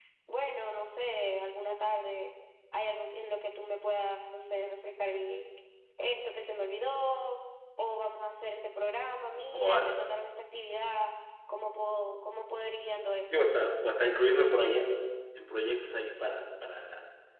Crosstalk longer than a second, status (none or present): none